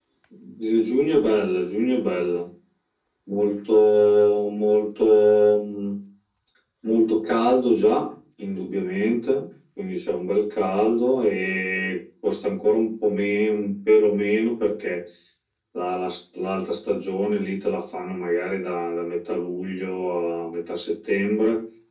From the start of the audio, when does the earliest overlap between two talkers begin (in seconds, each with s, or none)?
none